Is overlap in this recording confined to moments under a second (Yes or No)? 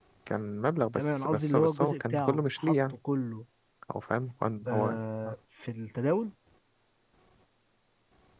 No